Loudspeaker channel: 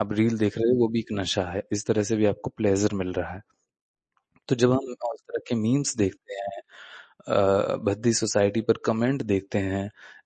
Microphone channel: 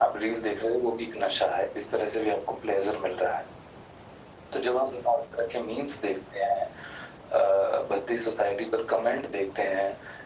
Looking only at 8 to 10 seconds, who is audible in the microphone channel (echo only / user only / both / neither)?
echo only